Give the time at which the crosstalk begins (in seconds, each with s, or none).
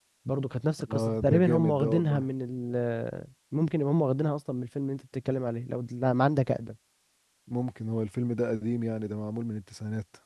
0.9 s